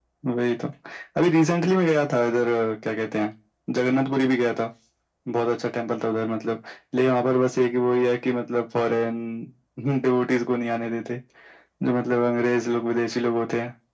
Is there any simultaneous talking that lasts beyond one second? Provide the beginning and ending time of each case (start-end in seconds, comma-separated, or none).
none